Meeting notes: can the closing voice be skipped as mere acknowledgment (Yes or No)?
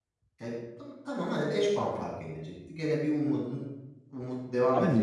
No